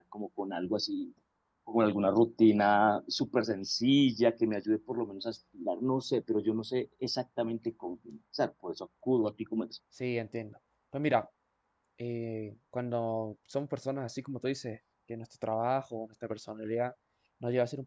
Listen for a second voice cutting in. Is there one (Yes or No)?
No